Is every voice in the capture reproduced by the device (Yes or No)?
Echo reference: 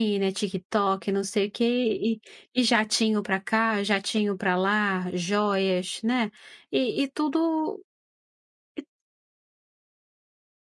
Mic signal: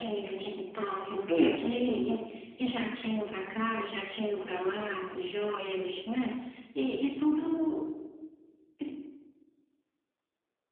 No